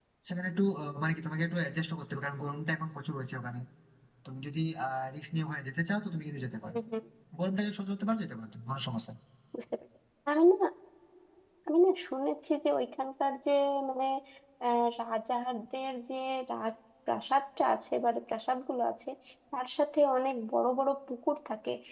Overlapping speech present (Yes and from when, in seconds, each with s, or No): No